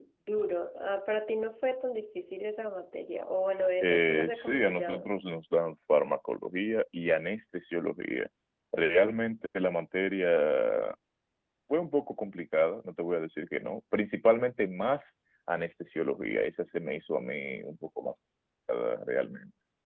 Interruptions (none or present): present